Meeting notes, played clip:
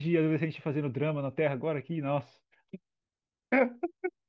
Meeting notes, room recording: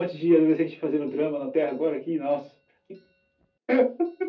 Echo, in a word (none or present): present